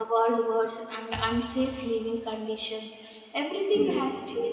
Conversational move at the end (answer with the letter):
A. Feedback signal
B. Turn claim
A